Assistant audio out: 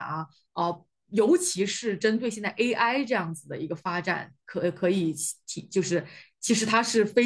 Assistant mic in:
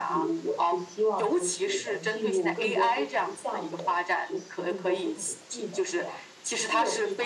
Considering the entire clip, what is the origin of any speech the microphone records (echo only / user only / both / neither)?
both